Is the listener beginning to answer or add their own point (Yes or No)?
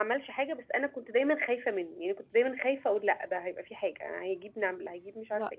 Yes